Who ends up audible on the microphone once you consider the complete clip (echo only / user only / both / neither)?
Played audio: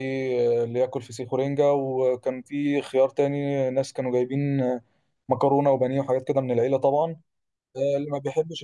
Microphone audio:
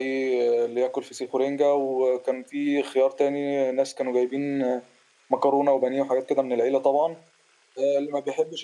echo only